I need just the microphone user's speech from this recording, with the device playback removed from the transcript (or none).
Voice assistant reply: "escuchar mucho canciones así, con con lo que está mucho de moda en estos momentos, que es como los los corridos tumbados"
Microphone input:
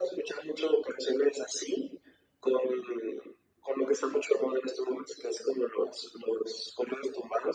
none